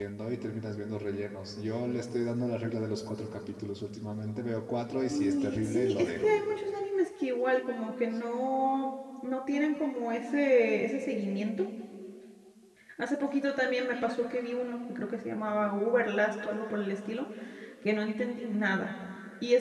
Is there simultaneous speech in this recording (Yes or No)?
Yes